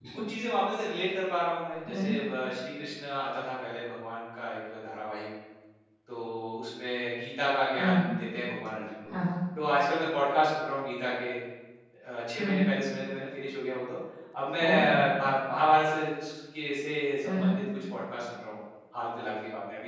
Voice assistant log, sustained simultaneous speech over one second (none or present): none